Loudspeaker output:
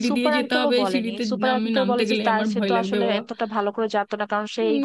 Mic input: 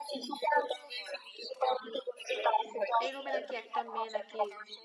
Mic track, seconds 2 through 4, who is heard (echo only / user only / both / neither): both